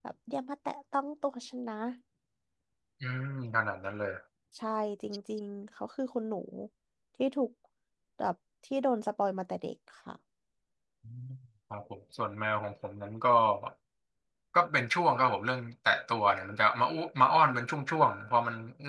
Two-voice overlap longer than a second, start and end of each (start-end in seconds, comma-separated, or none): none